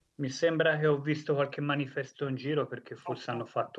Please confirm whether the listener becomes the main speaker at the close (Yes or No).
No